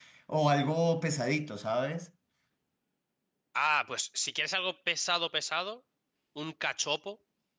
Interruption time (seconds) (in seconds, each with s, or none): none